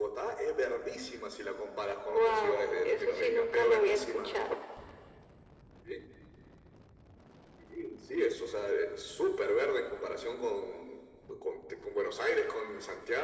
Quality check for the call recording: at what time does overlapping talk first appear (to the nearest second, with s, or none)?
2 s